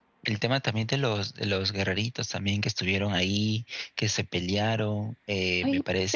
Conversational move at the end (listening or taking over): taking over